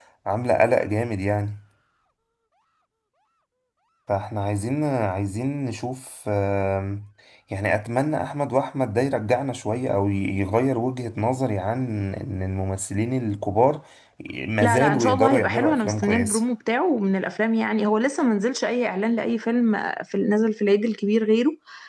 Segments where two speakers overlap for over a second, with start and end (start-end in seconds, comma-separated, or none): 14.6-16.4